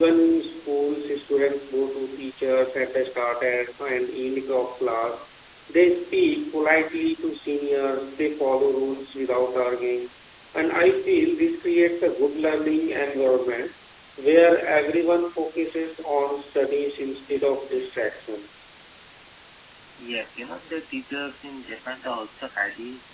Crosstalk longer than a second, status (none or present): none